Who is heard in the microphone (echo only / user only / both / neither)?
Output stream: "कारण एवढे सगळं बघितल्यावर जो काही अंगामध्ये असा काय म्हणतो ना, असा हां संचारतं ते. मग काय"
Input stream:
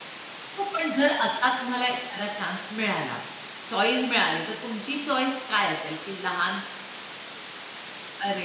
user only